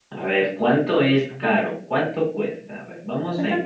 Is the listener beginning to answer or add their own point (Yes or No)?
No